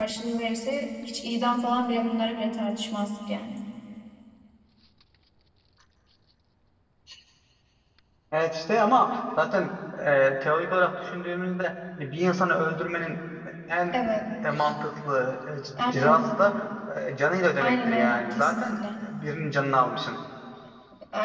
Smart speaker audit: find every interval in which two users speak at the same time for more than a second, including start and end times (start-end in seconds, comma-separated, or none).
17.6-18.8